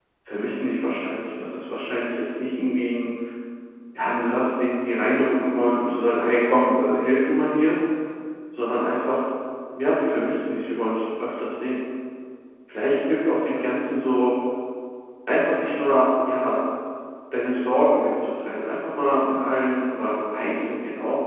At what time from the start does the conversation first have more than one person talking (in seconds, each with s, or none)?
none